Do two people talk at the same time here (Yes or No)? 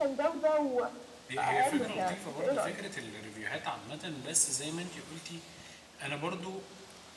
Yes